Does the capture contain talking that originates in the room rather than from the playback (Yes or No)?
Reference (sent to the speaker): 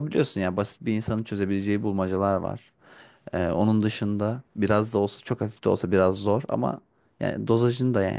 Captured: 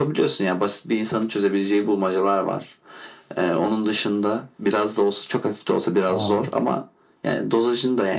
Yes